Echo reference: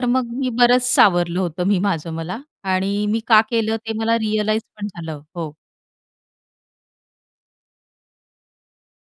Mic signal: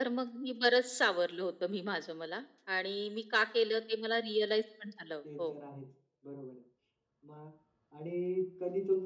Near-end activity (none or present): present